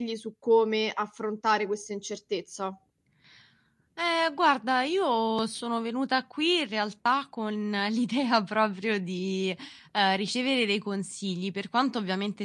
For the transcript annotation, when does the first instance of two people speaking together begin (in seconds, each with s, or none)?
none